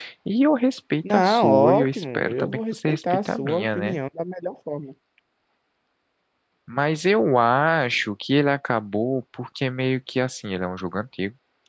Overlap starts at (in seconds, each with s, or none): 1.1 s